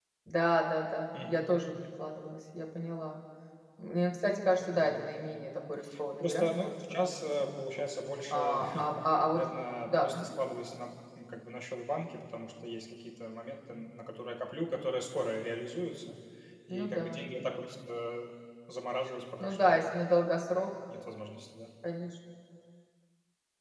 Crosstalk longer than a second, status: present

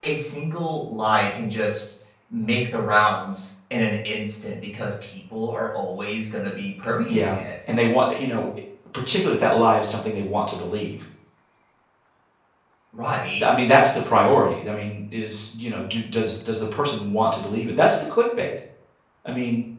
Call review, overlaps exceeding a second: none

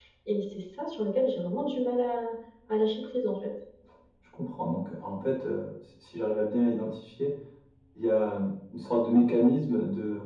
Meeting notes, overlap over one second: none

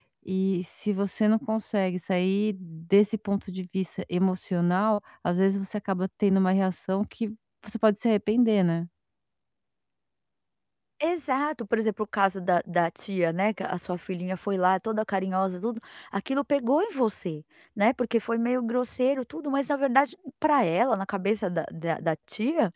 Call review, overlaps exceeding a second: none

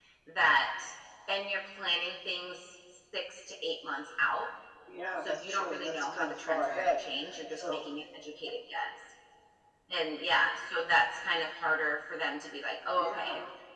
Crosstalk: present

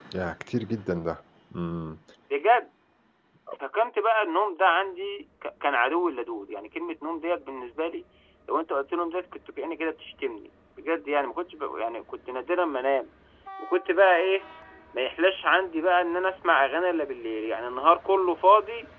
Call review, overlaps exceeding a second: none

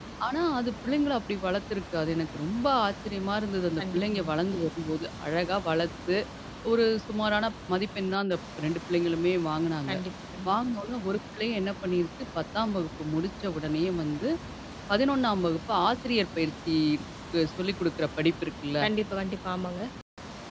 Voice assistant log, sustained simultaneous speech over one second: none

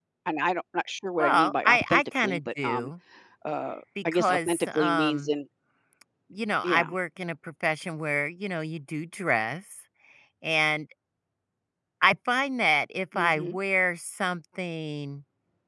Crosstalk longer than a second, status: present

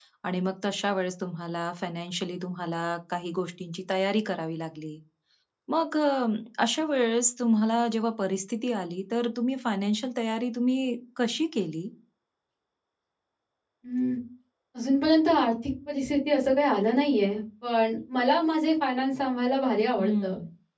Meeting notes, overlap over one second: none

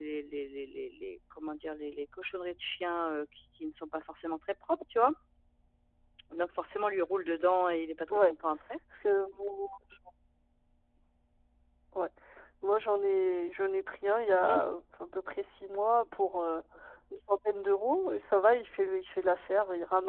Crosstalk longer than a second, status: none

